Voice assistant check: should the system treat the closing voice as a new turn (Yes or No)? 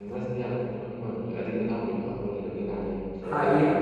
Yes